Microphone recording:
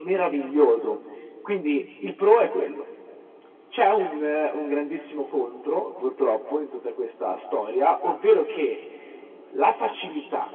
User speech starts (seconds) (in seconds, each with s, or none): none